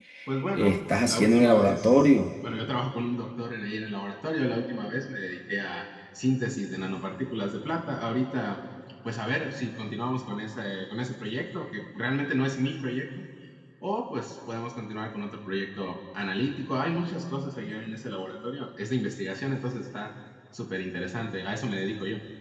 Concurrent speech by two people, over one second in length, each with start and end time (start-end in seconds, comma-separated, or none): 0.5-2.1